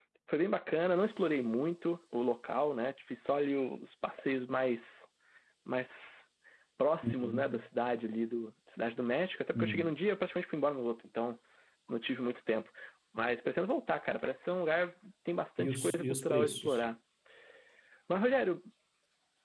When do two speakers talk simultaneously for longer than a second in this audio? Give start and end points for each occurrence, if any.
15.6-16.8

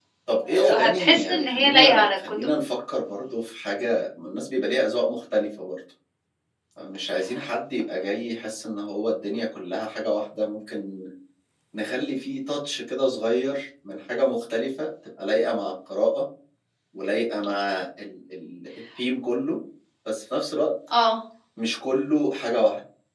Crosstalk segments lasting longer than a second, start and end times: 0.6-2.5

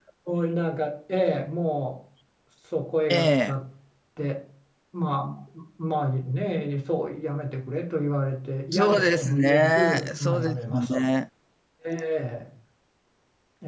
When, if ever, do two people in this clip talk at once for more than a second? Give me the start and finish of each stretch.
8.7-10.9

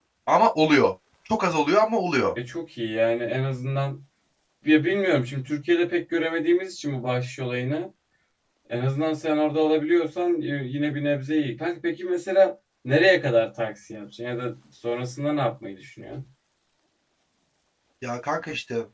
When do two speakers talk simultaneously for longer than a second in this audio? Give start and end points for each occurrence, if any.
none

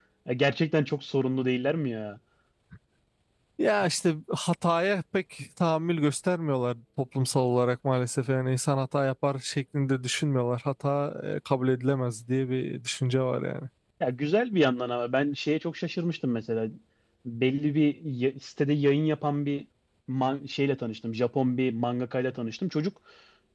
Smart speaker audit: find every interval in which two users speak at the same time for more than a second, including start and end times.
none

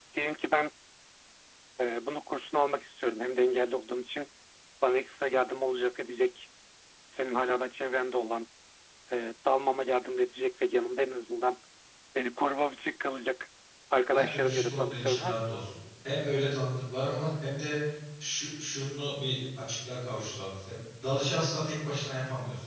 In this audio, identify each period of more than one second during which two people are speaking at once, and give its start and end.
14.1-15.4

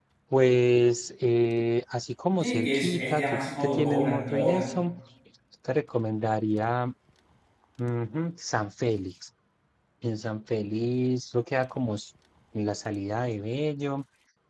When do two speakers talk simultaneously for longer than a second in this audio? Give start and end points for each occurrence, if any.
2.4-4.8

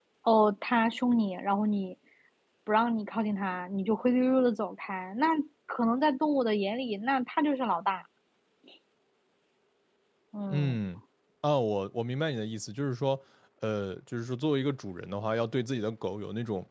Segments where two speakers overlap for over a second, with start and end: none

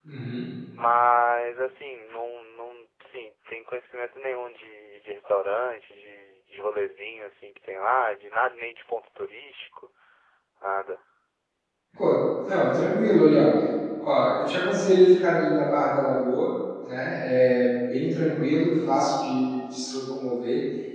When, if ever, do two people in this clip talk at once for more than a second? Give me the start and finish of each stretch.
none

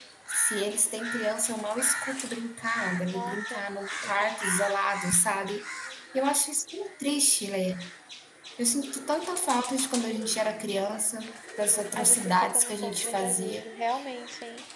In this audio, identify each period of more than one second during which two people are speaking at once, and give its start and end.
11.9-13.6

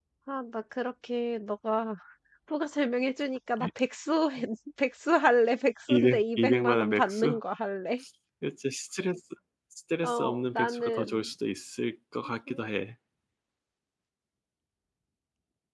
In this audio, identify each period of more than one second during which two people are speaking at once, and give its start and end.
5.9-7.4, 10.0-11.3

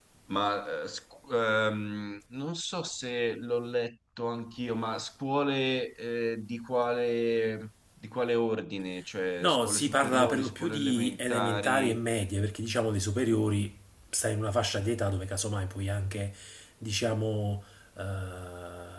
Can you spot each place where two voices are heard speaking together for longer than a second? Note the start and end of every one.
9.4-12.0

